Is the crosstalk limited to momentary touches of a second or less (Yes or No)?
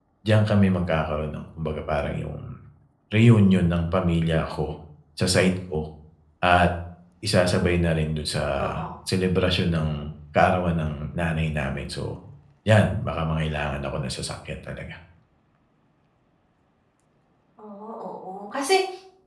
Yes